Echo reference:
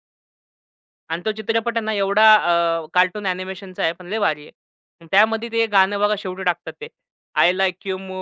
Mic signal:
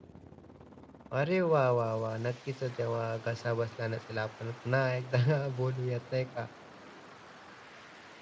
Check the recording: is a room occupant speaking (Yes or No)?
Yes